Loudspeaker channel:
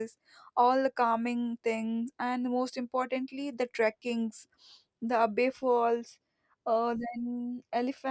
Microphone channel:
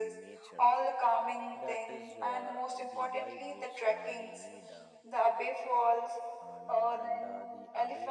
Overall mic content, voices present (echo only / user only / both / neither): both